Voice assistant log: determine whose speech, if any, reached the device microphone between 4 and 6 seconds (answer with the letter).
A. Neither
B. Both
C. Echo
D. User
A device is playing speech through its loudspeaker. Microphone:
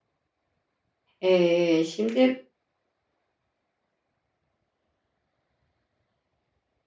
A